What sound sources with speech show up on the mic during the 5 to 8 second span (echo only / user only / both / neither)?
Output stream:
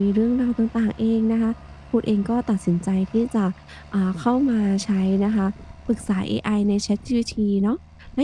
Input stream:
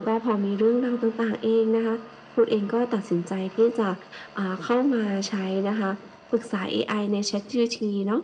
echo only